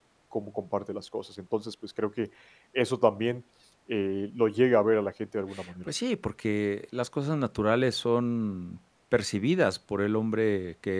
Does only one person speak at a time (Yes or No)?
Yes